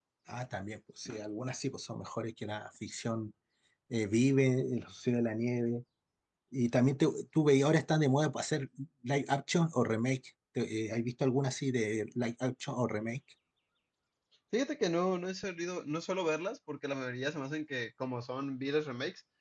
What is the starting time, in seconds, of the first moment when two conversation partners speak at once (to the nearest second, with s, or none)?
none